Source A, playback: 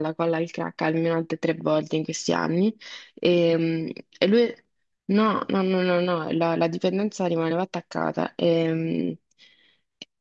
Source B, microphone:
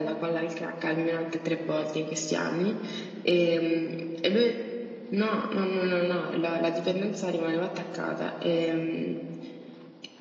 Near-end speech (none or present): none